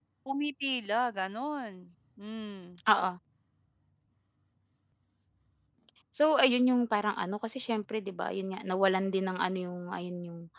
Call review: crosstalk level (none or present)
none